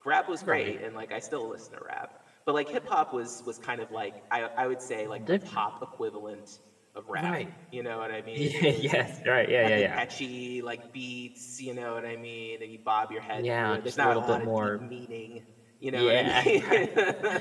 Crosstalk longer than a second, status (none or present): present